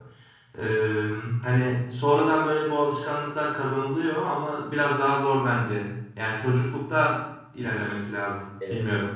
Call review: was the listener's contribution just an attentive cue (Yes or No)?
No